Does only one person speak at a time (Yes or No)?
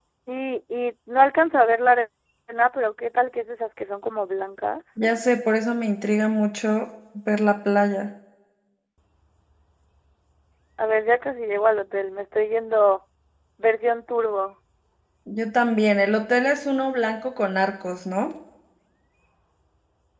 Yes